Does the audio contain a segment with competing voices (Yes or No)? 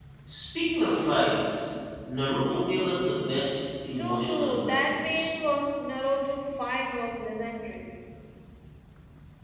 Yes